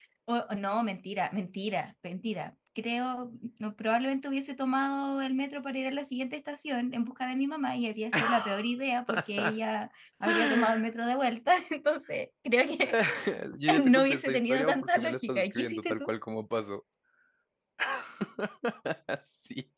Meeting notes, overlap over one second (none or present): present